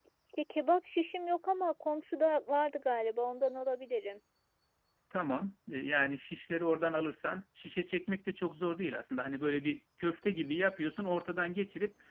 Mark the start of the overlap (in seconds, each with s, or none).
none